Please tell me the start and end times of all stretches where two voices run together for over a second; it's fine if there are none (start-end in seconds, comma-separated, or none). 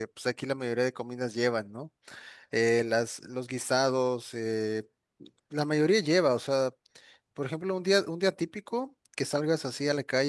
none